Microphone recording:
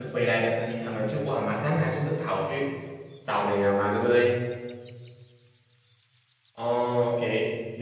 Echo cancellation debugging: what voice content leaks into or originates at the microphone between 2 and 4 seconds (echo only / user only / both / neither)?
user only